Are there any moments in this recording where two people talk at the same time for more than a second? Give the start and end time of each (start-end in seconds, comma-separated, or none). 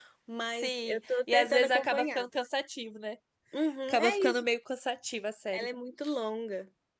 0.5-2.2